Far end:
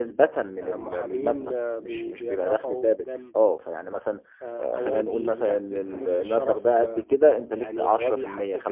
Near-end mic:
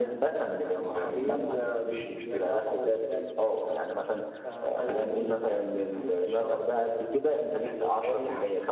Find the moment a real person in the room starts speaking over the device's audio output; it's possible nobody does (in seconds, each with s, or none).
none